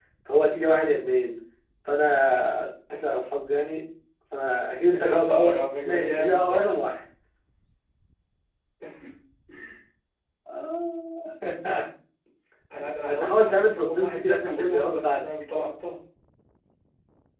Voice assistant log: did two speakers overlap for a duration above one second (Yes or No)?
Yes